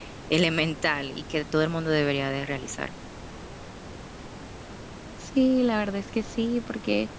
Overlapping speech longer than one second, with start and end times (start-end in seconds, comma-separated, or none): none